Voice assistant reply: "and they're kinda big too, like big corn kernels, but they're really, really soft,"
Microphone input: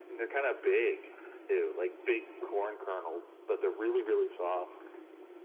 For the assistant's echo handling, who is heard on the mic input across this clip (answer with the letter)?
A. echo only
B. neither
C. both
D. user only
A